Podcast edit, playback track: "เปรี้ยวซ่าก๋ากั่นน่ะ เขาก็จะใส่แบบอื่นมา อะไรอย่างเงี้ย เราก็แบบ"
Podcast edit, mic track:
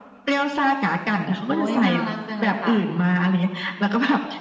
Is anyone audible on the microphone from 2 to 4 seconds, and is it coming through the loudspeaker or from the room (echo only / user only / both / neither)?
both